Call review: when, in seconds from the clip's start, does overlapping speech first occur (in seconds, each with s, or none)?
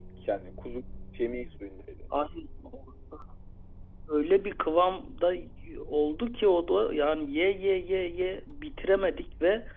none